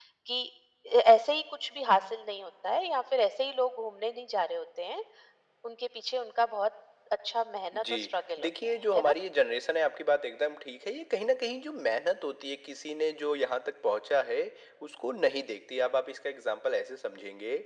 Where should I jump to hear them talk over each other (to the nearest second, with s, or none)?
8 s